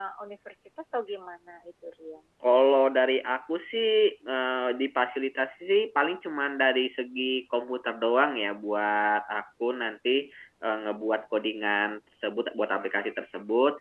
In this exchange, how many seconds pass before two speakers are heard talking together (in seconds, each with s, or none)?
none